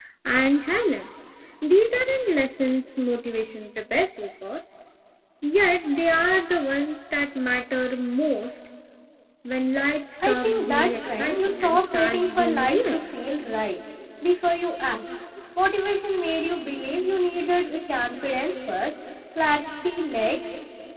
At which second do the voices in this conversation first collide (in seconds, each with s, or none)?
10.2 s